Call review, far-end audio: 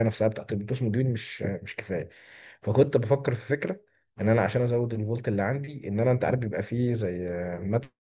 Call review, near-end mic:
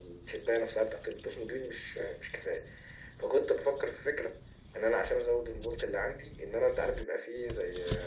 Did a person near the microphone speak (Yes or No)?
No